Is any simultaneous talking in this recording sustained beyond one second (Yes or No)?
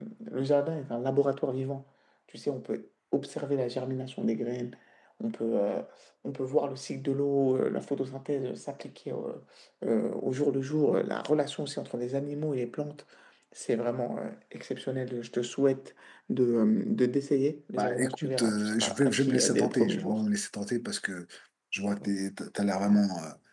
Yes